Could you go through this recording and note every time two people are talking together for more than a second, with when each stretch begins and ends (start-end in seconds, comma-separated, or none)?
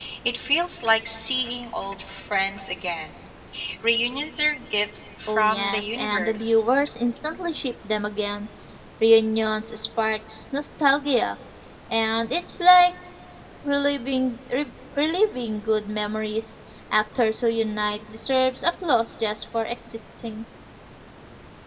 5.3-6.6